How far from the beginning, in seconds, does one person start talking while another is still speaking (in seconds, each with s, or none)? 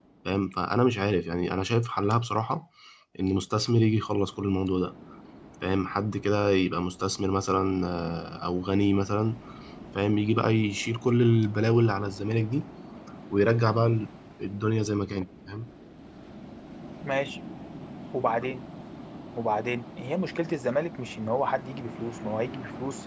none